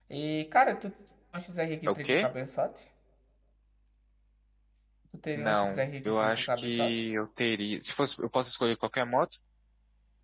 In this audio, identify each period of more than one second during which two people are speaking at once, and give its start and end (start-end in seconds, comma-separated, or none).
5.3-6.9